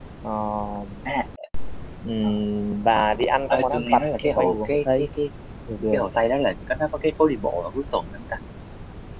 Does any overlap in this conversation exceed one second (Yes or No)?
Yes